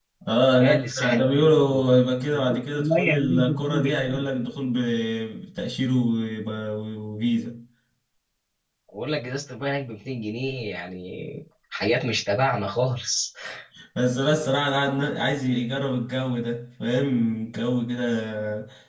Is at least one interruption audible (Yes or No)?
Yes